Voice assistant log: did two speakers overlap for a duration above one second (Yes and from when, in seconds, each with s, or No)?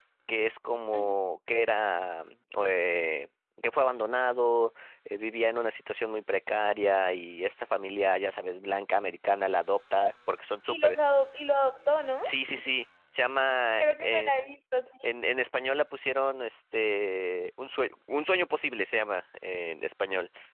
No